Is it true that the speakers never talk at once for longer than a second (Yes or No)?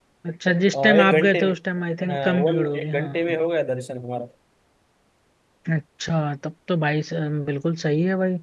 No